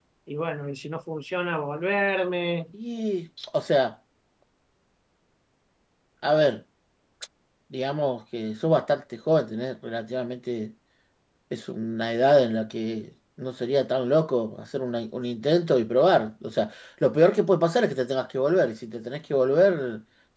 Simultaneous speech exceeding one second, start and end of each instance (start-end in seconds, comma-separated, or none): none